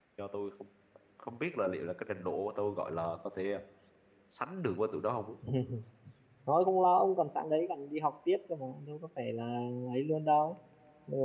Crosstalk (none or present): none